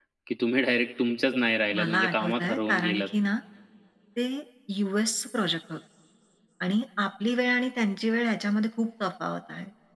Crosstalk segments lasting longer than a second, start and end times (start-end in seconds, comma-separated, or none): 1.8-3.1